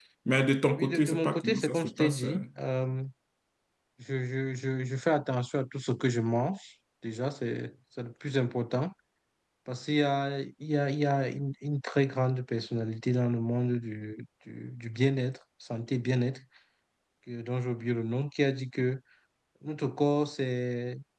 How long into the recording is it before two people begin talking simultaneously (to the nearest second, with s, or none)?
1 s